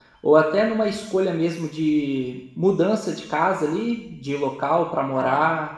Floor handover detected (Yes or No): Yes